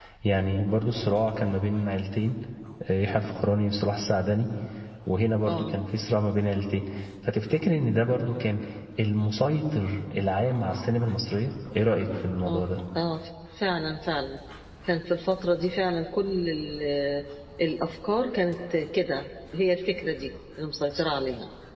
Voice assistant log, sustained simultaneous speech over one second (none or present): none